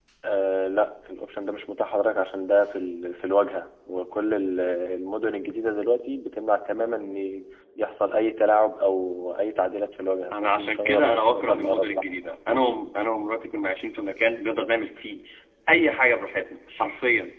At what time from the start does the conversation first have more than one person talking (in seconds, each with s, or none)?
10.3 s